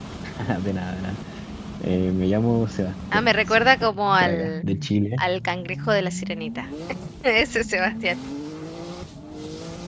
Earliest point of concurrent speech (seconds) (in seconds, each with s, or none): 3.1 s